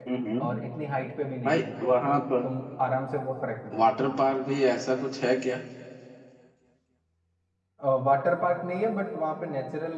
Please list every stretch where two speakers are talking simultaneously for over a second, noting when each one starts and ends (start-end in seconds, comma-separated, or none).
none